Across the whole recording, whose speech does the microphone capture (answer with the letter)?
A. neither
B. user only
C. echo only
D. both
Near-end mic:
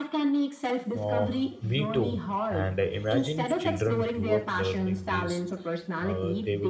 D